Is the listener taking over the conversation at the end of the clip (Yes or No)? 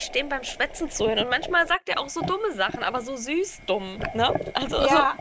Yes